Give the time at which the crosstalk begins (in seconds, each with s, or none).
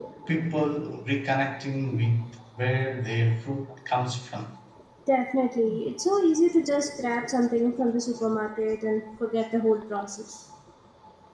none